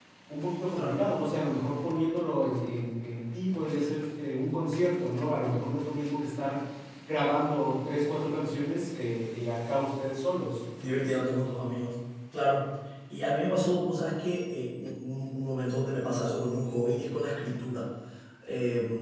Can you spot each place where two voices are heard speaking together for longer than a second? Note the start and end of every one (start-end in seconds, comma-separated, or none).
none